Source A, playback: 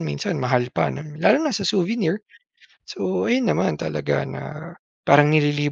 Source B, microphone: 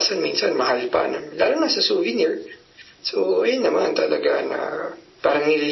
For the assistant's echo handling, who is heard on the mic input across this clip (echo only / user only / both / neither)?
echo only